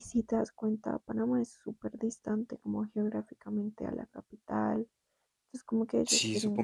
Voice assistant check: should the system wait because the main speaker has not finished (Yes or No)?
No